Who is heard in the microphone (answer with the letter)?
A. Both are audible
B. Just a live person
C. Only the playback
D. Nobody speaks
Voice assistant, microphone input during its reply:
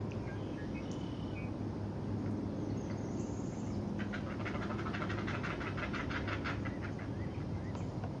D